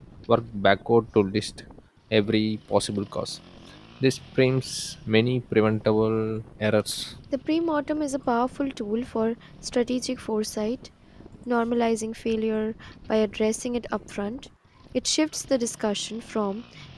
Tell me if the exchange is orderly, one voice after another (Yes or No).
Yes